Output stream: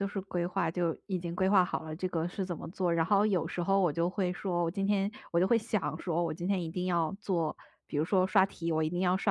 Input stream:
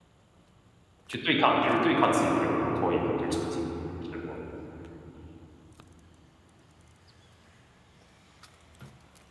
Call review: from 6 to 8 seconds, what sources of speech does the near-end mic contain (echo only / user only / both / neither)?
neither